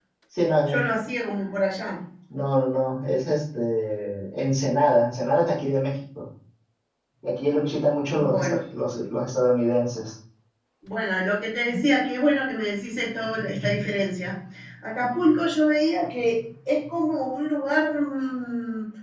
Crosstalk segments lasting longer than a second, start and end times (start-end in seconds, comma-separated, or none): none